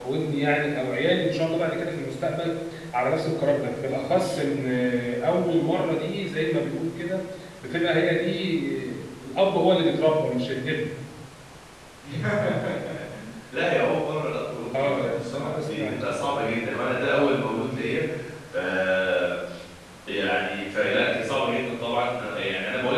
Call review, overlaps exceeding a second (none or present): present